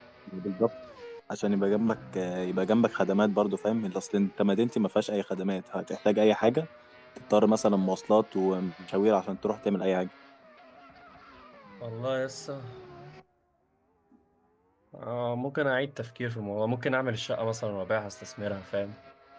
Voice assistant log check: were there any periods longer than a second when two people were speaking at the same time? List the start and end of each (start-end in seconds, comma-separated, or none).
none